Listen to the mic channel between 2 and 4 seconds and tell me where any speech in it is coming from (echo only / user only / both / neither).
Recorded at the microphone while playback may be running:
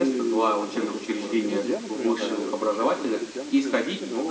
both